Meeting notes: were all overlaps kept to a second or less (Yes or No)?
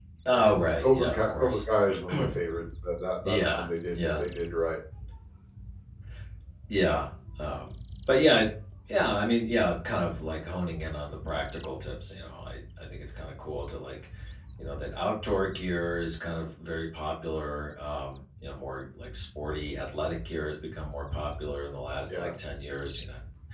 No